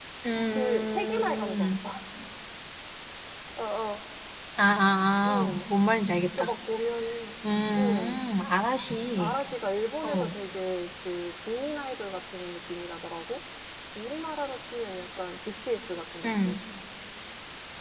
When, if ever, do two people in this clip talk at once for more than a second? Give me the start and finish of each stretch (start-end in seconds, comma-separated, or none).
0.5-1.8